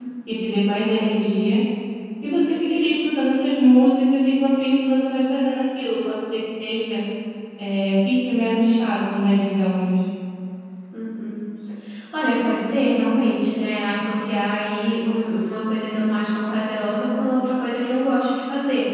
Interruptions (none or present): none